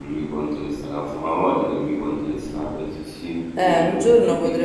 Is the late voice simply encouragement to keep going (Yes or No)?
No